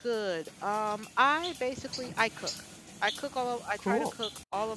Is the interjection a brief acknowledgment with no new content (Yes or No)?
Yes